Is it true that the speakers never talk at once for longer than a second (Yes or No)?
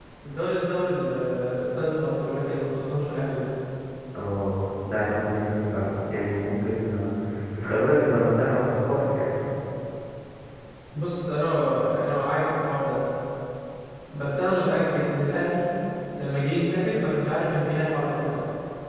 Yes